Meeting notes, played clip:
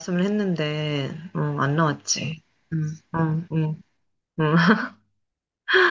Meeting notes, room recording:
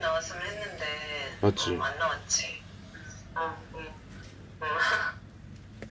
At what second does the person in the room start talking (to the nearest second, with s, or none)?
1 s